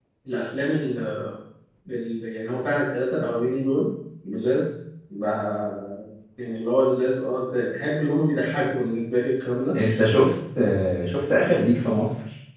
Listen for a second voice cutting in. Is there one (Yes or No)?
No